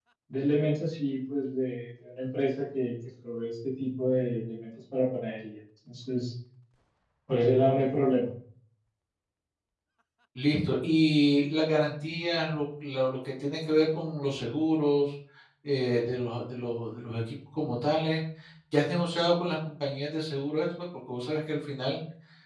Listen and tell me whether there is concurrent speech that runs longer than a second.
No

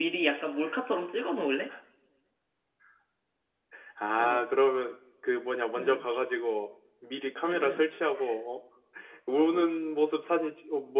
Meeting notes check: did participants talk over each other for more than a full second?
No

